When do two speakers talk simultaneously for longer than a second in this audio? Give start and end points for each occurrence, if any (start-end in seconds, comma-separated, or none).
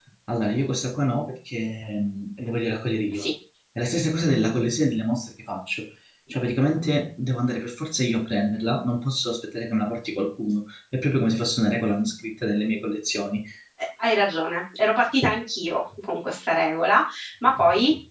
none